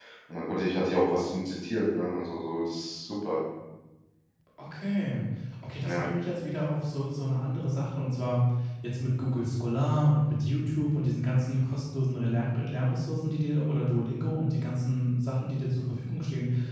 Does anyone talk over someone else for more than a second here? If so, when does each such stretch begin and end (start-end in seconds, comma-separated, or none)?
none